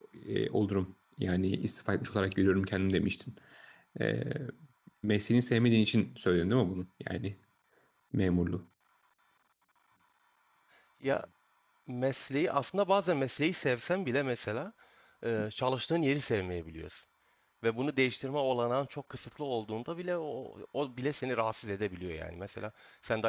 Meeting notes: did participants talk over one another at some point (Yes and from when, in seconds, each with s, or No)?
No